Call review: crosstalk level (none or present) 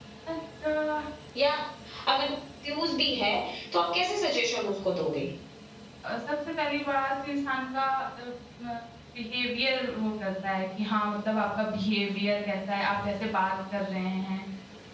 none